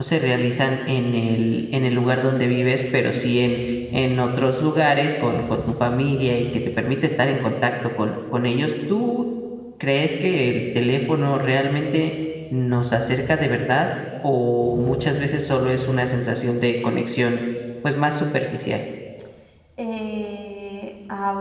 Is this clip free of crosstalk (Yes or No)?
Yes